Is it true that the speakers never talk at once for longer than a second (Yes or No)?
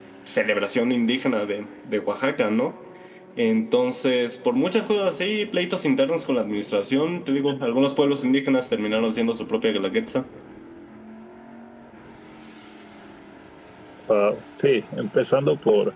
Yes